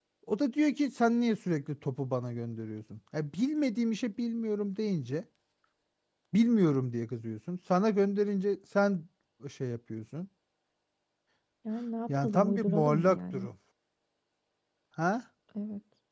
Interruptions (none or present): present